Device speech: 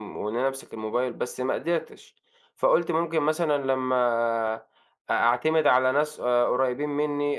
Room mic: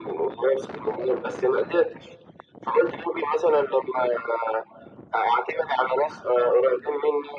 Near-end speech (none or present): none